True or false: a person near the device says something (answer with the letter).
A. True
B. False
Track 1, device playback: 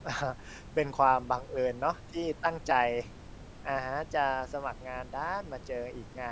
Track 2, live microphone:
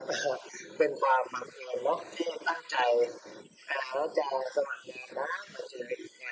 B